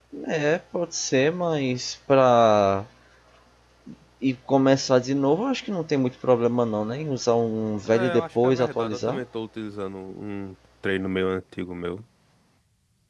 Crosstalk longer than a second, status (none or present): present